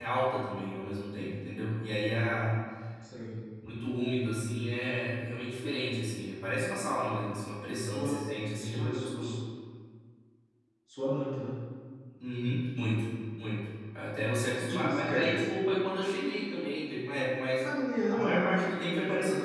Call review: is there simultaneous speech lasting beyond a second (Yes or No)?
Yes